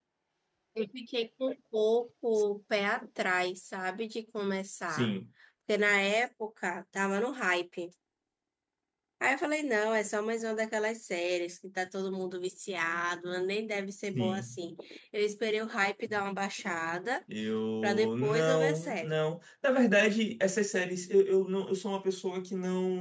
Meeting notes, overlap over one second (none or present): present